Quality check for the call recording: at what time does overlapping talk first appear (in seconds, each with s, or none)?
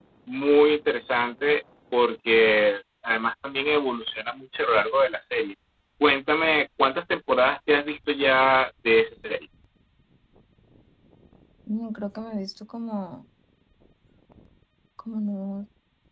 none